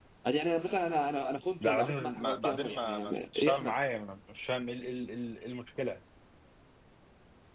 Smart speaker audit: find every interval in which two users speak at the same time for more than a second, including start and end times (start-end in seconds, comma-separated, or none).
1.6-3.7